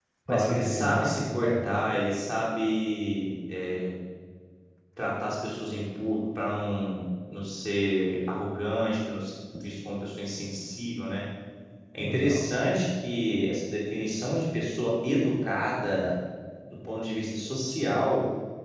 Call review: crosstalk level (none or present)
present